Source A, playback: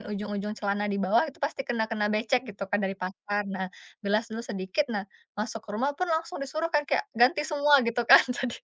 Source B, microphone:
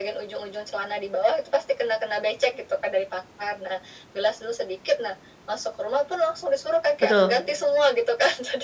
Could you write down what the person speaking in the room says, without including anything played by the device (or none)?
betul,